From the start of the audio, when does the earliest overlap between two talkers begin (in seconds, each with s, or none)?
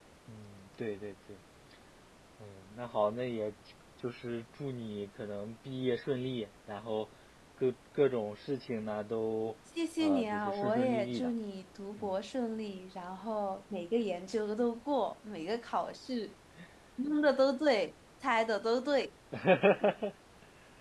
10.0 s